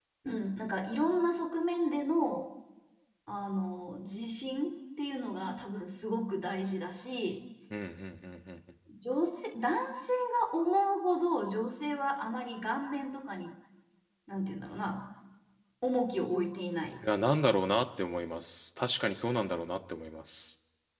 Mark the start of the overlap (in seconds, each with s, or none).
none